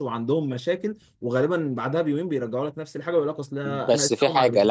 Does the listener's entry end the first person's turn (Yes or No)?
Yes